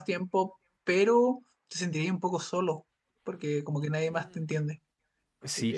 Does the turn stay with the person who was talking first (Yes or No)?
No